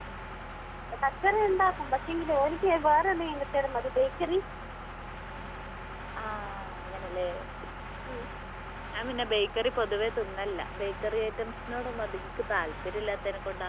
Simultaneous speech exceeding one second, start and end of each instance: none

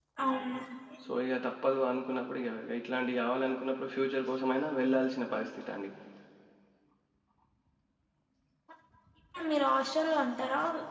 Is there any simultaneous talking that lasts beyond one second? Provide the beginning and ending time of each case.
none

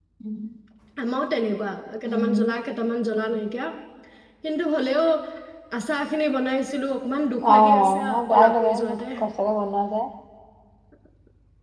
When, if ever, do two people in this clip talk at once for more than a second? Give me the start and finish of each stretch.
7.5-8.7

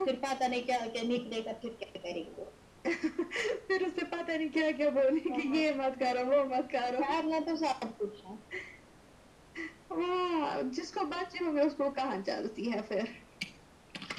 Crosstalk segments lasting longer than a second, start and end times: none

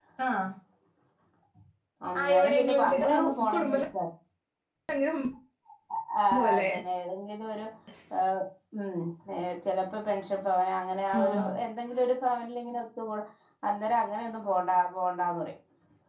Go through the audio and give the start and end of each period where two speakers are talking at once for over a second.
2.2-3.8

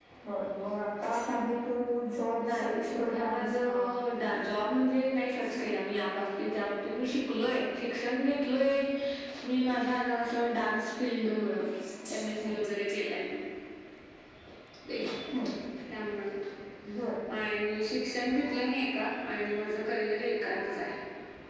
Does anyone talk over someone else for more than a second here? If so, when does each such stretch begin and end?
2.5-3.8

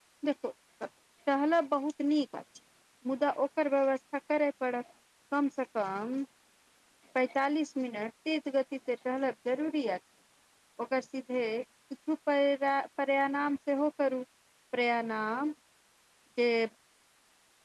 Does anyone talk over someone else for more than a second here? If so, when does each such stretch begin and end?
none

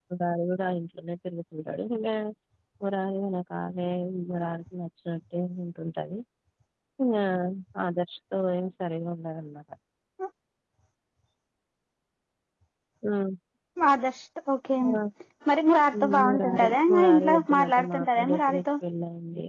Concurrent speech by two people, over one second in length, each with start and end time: 16.1-18.6

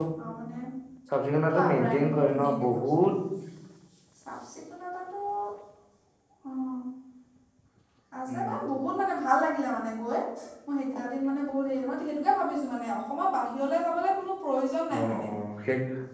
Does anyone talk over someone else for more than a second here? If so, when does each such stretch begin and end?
1.7-3.0

